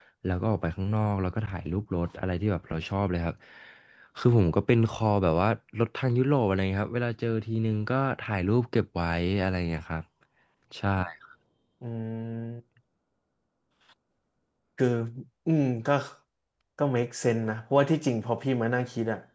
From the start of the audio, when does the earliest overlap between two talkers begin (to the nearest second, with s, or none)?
none